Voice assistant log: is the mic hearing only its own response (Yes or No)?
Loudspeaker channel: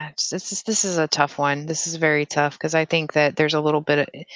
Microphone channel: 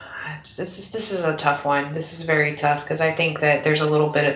Yes